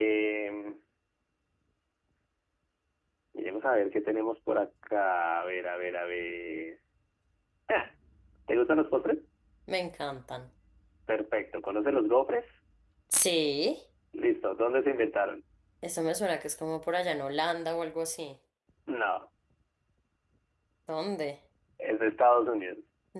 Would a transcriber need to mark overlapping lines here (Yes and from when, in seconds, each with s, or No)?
No